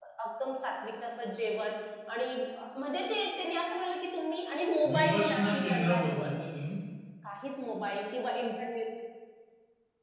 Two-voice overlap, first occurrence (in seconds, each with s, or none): 4.8 s